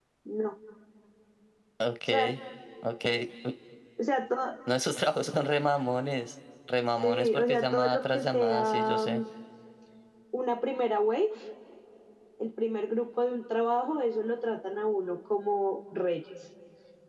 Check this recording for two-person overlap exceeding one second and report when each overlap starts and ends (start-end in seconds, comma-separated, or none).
7.0-9.2